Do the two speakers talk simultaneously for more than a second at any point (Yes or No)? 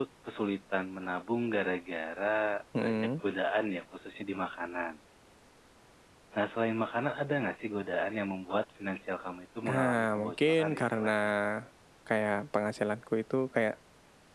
Yes